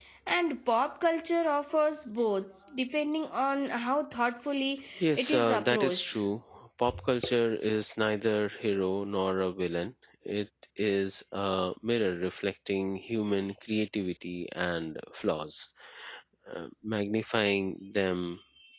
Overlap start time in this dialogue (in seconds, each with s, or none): 5.0 s